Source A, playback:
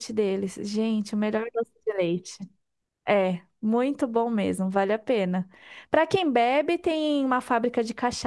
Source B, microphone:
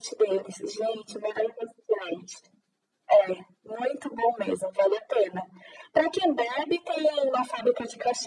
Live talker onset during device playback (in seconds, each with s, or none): none